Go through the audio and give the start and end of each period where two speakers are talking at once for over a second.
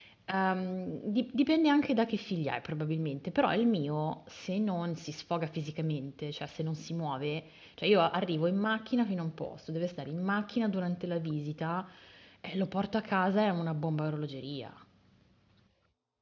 none

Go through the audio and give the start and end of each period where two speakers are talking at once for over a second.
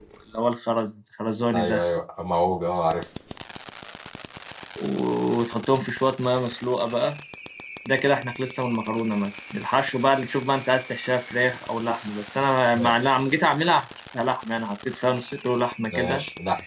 none

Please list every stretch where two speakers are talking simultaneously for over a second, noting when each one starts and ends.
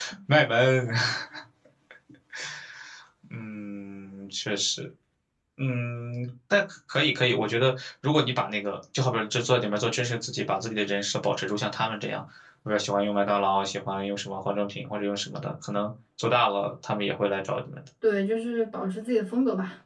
none

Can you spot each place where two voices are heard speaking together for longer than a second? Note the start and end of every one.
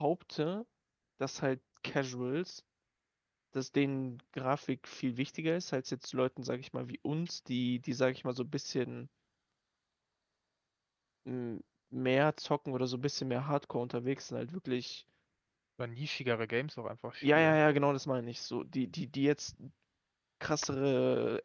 none

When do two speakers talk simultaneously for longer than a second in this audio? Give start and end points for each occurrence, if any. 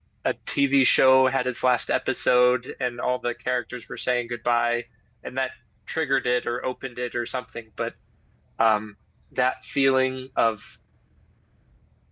none

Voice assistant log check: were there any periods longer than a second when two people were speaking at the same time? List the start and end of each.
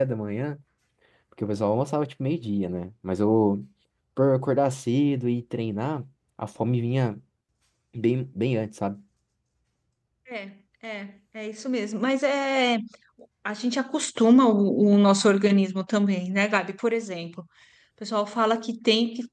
none

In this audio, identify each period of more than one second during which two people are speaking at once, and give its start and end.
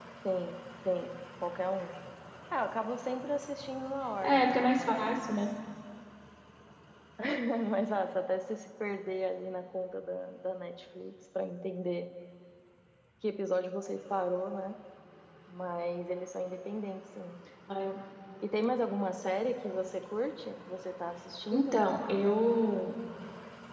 4.2-5.5

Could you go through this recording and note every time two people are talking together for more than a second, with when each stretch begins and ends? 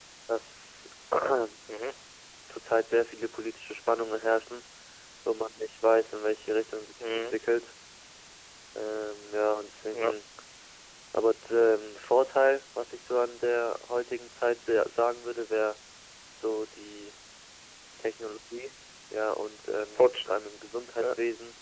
none

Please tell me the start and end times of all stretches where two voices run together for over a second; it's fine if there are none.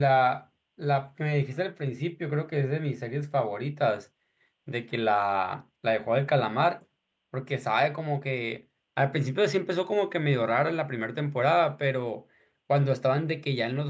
none

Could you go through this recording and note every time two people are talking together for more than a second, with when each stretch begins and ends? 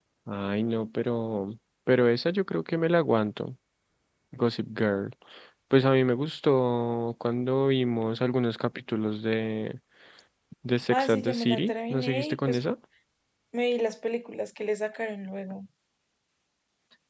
10.9-12.6

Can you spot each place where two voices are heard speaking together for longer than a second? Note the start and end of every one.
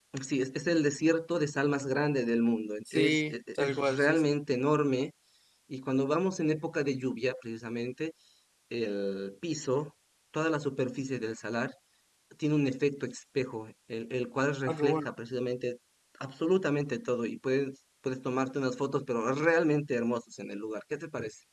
2.9-4.3

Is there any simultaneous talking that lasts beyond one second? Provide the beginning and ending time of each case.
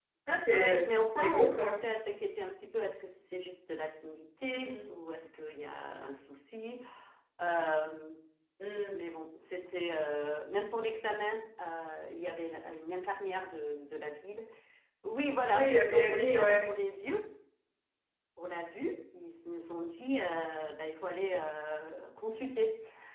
0.5-1.7, 15.5-16.7

